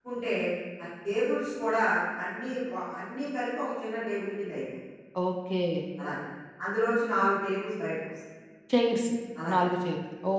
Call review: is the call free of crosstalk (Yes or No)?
Yes